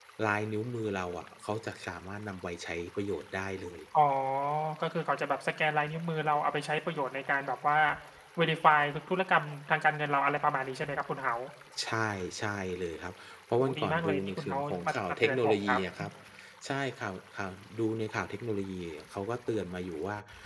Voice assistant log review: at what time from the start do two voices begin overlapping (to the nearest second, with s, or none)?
14 s